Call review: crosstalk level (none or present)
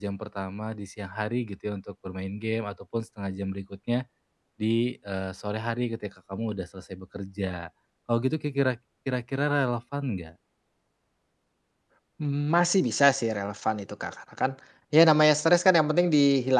none